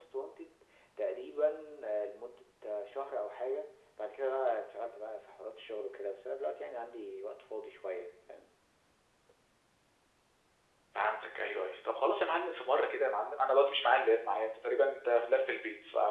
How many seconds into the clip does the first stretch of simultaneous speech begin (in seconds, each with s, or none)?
none